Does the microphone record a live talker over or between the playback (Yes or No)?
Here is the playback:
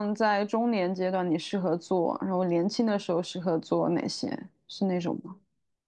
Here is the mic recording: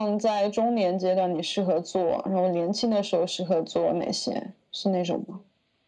No